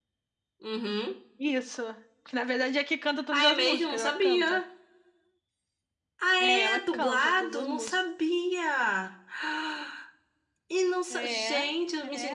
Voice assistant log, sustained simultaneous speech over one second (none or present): present